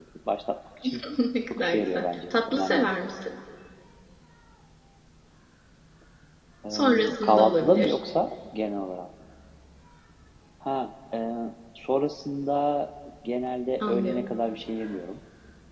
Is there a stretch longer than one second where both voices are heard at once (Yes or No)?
Yes